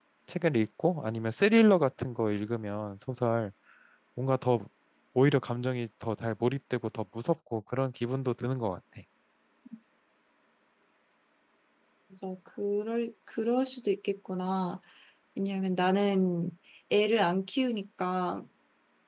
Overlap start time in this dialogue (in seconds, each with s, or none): none